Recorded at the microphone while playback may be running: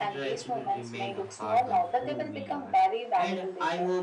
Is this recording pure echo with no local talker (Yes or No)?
No